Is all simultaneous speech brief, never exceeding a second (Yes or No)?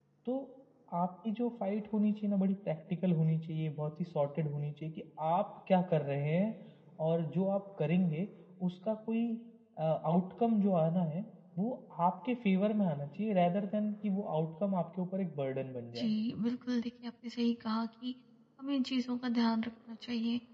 Yes